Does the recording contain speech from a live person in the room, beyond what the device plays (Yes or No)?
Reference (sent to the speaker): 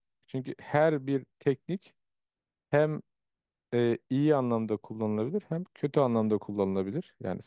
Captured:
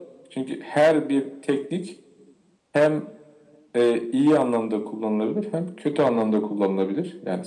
No